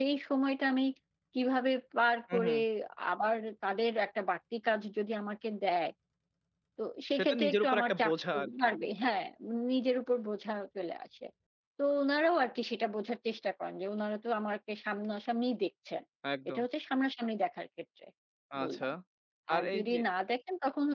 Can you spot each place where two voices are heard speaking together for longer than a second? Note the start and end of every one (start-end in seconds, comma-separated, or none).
7.2-8.7